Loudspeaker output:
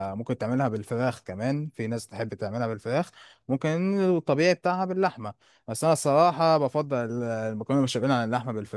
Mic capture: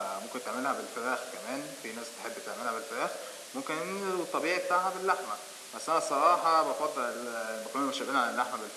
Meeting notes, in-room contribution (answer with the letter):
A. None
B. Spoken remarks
A